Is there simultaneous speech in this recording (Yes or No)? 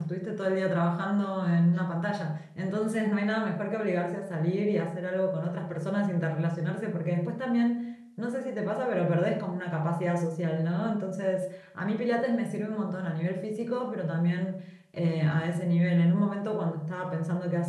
No